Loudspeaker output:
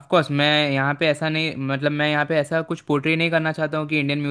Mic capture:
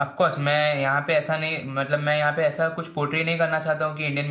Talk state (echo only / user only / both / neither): echo only